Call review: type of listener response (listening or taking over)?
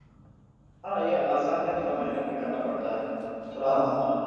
listening